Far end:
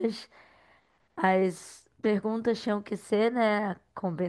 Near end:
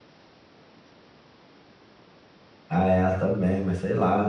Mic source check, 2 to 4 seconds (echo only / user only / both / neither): user only